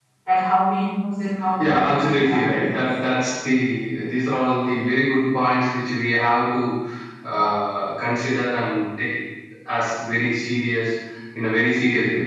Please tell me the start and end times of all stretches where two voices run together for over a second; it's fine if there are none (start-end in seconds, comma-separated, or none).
1.6-2.8